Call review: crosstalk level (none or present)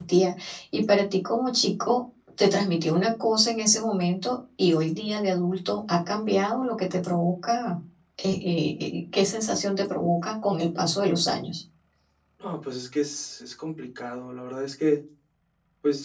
none